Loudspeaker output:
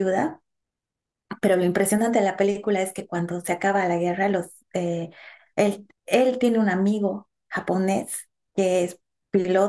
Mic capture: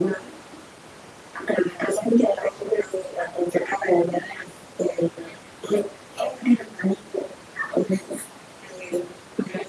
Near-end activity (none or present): none